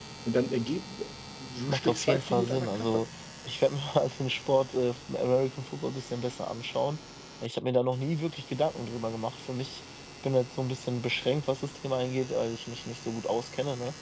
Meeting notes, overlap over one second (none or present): present